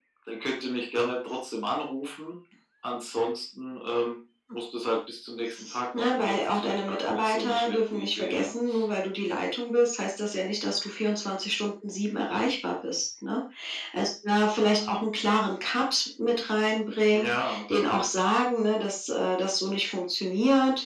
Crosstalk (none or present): present